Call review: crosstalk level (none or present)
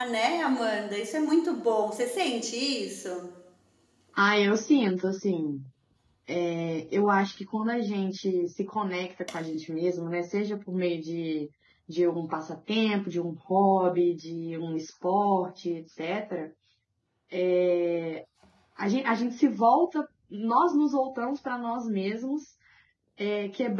none